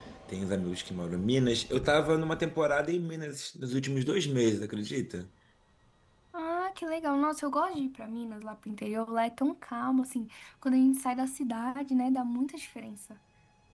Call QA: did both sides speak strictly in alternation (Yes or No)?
Yes